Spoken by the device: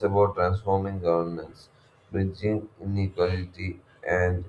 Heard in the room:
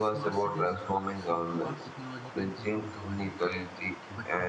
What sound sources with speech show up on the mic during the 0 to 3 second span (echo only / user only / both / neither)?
both